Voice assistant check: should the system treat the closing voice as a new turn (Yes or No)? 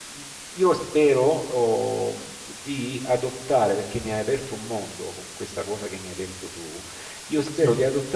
No